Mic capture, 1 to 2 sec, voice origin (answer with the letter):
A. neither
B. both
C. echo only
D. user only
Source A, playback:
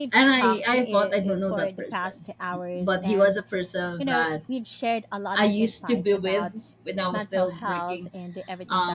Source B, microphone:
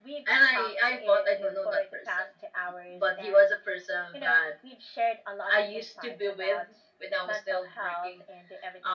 C